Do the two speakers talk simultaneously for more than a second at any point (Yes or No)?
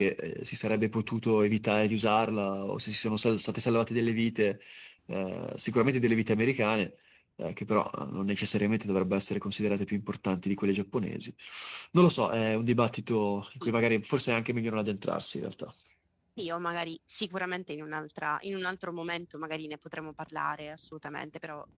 No